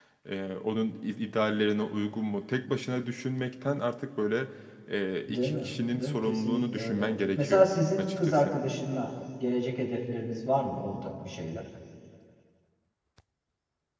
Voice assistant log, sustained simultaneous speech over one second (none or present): present